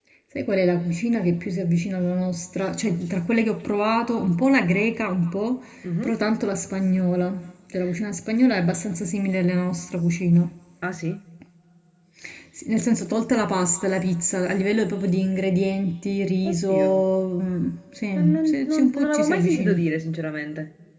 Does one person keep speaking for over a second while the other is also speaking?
Yes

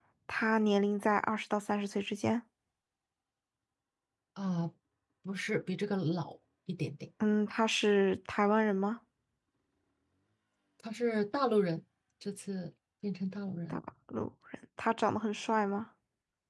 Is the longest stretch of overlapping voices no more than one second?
Yes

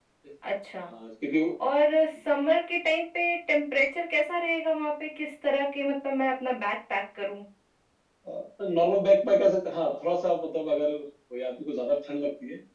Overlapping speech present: No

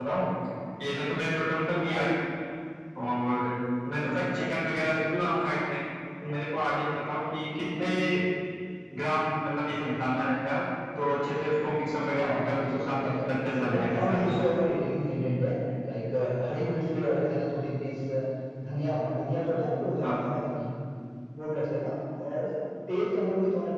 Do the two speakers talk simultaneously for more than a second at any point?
Yes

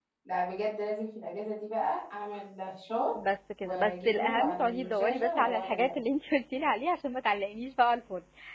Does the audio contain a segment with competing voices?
Yes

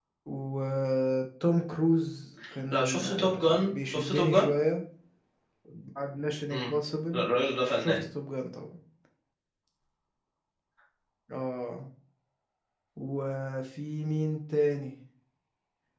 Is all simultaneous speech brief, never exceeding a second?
No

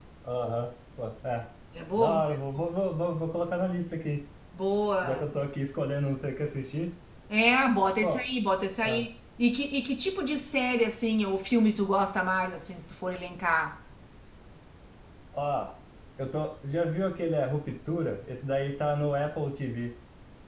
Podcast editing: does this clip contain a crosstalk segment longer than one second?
No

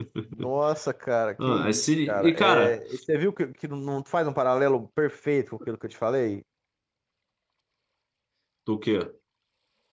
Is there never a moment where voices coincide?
No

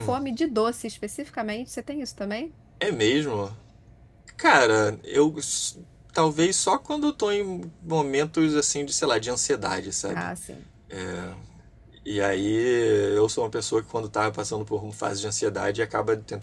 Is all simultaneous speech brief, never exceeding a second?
Yes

